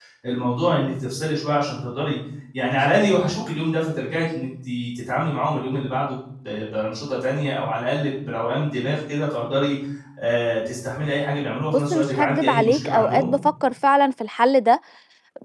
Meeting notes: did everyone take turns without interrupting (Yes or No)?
No